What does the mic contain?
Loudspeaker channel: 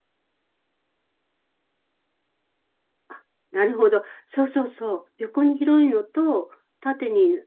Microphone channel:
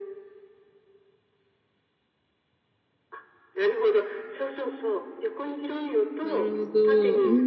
both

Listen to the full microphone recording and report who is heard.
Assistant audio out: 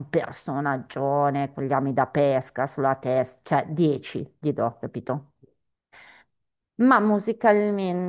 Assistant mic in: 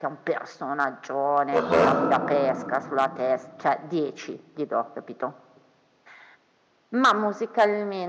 both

